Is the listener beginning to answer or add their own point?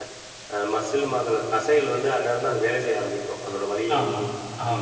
Yes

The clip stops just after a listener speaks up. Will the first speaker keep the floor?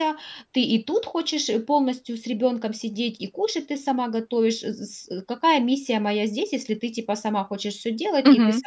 No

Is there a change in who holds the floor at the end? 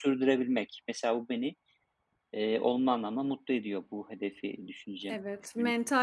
Yes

